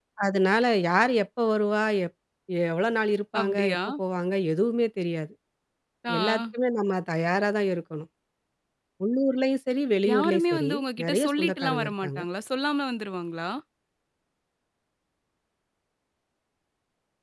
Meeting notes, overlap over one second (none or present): present